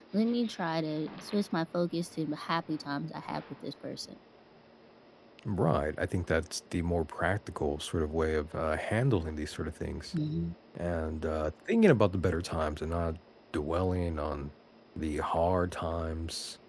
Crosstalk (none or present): none